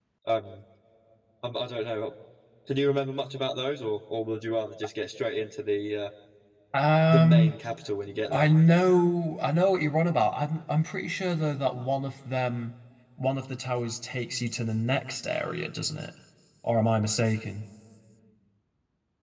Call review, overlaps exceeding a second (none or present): none